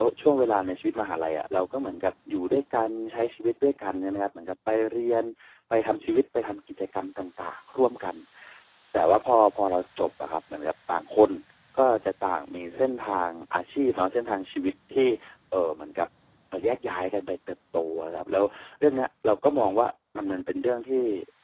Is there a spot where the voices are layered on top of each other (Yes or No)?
No